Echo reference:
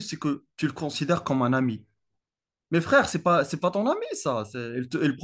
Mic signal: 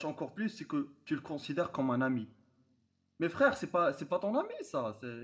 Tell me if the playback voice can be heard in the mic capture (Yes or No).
Yes